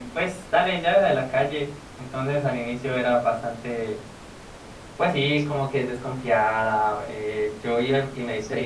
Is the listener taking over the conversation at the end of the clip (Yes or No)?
Yes